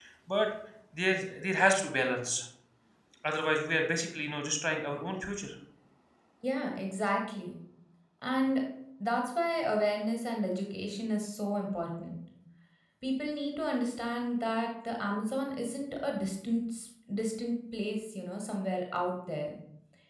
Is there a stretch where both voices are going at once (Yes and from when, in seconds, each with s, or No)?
No